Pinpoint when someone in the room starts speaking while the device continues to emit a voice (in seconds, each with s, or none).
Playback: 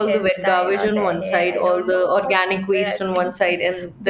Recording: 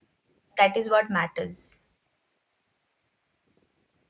0.6 s